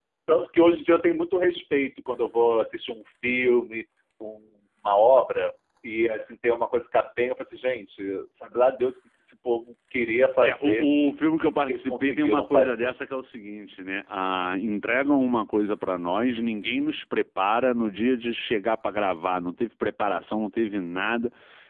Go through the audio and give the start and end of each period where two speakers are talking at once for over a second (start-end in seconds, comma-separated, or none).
11.4-12.9